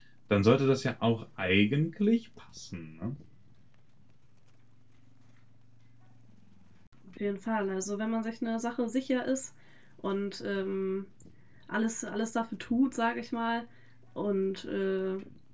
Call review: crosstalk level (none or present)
none